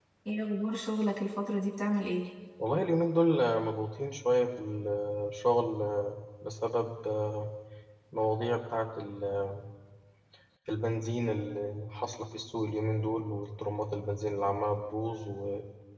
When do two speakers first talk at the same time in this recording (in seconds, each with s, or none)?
none